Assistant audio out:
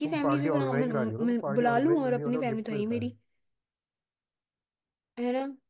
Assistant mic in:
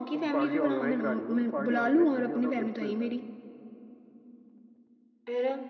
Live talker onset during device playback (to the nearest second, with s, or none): none